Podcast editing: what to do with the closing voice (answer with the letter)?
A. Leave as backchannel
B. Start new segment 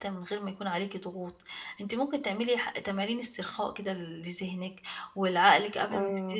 A